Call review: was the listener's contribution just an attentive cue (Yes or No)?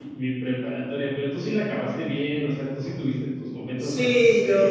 No